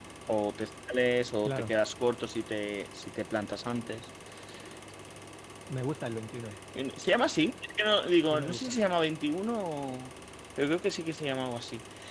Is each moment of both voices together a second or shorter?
Yes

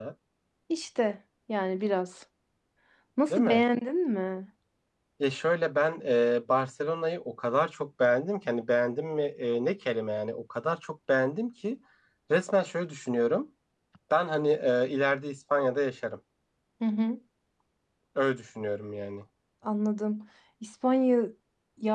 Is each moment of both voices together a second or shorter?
Yes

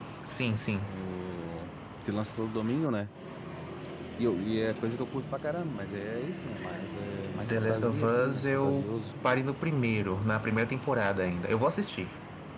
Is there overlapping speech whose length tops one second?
Yes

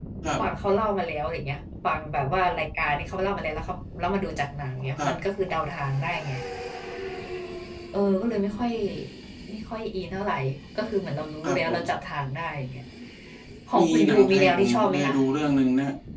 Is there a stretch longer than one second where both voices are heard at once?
Yes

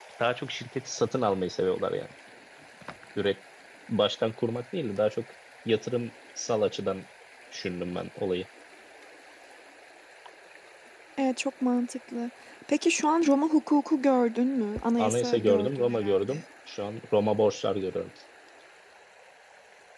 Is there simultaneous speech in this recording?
Yes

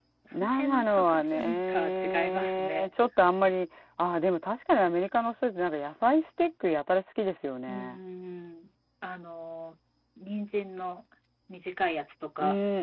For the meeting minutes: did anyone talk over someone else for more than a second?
Yes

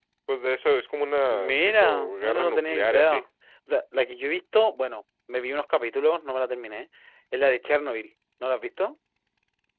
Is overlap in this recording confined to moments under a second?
No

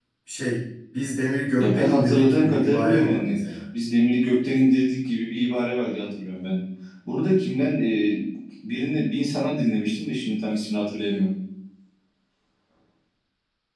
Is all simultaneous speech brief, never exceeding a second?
No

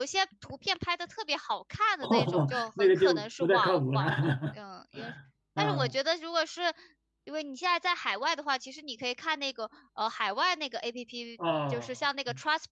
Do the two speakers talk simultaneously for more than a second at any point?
Yes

